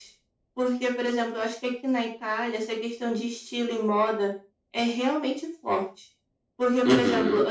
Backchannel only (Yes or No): Yes